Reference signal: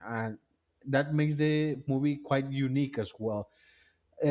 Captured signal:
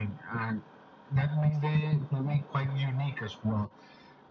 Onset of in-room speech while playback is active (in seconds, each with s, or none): none